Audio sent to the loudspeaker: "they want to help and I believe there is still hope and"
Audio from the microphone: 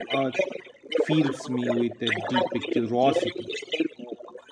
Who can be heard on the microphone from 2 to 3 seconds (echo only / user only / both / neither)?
both